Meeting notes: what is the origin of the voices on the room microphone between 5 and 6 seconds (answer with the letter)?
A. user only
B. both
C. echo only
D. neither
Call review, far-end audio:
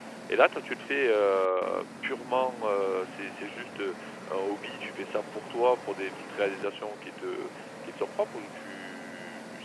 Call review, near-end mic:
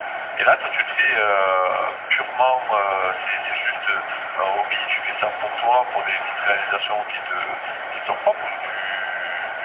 C